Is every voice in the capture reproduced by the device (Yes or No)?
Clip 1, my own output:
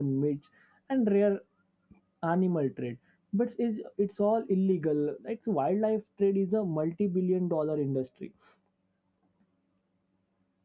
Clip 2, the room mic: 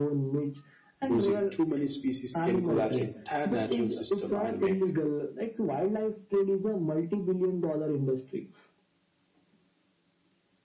No